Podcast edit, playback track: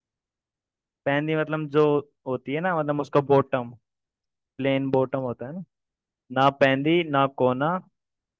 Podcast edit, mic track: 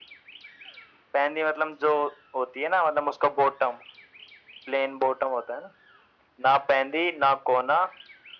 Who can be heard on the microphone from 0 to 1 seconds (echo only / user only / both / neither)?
neither